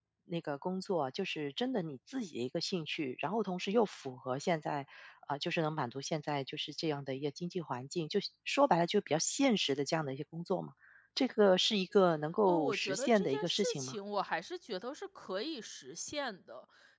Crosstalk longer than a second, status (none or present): present